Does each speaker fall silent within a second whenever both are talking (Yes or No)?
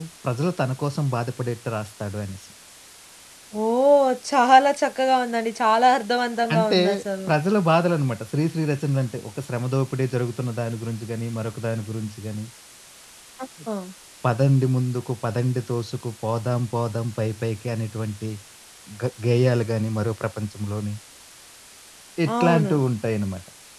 Yes